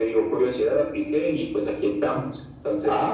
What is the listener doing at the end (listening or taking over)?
taking over